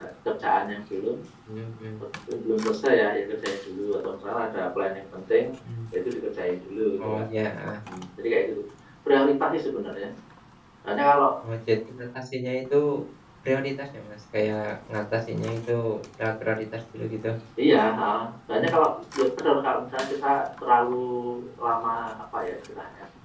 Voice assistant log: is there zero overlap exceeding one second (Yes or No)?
Yes